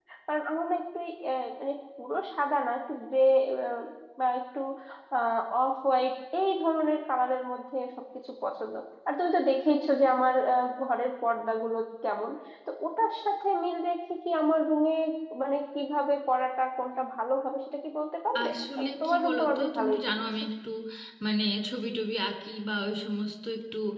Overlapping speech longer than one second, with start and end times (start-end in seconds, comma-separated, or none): 18.4-20.2